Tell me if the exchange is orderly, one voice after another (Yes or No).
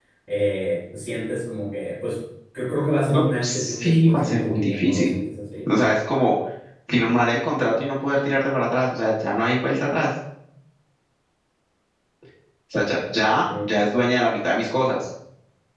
No